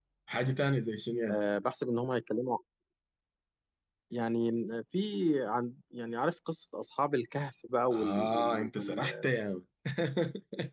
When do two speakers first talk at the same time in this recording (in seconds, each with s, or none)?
7.9 s